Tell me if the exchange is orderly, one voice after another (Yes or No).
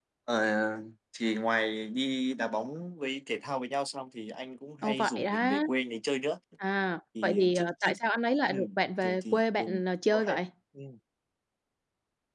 No